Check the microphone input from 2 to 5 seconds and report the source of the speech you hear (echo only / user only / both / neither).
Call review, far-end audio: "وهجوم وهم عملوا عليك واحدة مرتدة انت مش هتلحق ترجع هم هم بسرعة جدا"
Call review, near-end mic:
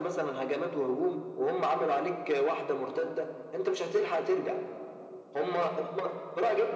echo only